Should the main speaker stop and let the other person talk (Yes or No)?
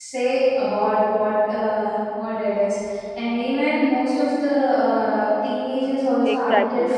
Yes